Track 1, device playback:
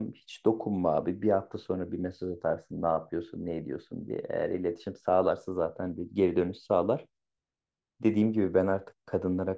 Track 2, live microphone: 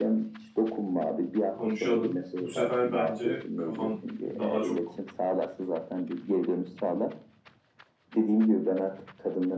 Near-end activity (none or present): present